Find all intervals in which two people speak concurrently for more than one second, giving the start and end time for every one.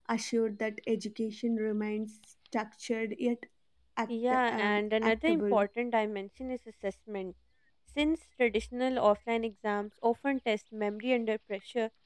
4.1-5.6

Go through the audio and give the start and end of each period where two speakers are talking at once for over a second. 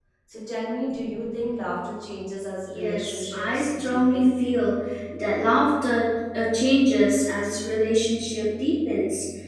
2.7-4.3

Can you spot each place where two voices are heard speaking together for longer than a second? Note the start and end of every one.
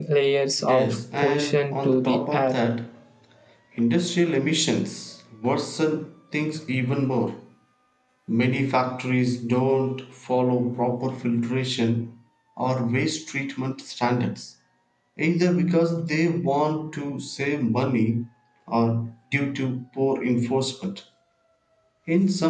0.6-2.6

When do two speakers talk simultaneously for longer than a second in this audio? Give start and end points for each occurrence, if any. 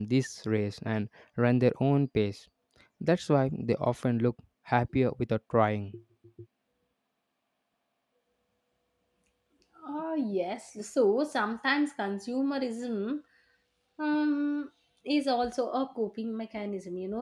none

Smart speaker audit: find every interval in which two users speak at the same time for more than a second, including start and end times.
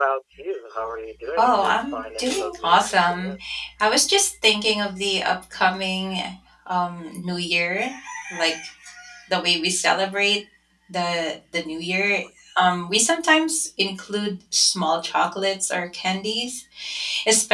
1.4-3.3

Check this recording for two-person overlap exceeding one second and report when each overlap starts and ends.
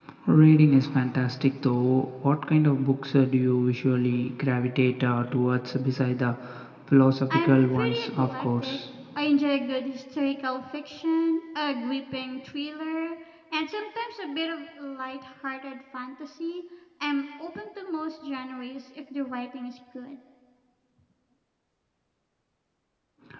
7.3-8.8

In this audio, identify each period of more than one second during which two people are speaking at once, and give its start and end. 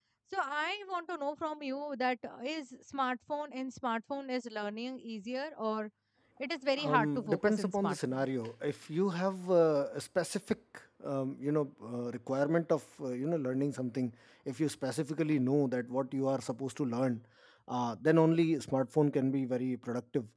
6.8-8.2

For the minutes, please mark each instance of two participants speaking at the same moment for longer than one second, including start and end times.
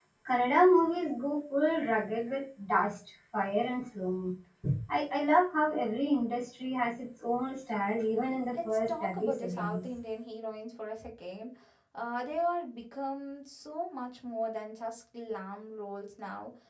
8.5-9.8

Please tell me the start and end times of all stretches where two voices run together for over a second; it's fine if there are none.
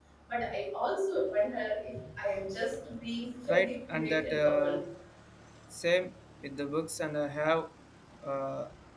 3.5-4.7

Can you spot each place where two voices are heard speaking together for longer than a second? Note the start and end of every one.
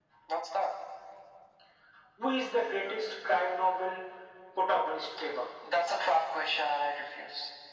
none

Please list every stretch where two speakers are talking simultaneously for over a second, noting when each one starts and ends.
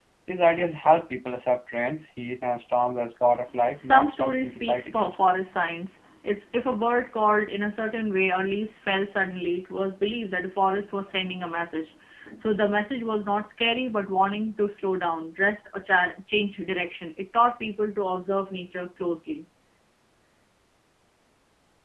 3.8-5.2

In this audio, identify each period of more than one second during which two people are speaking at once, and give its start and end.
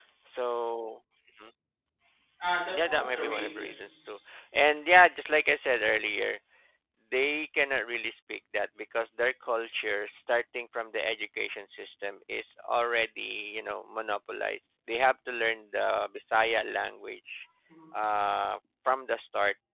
2.7-4.2

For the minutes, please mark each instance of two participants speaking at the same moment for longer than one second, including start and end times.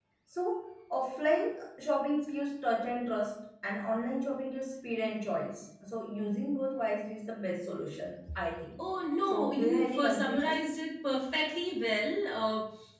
9.3-10.6

